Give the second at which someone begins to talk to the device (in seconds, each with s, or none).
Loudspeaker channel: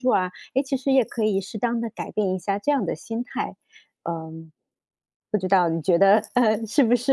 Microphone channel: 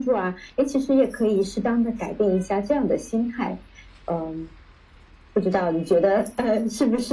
none